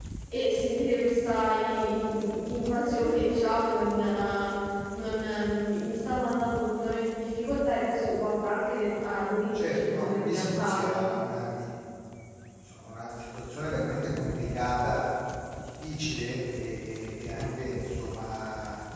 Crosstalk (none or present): present